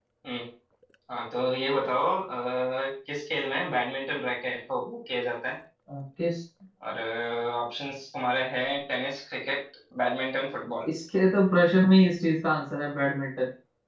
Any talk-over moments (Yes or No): No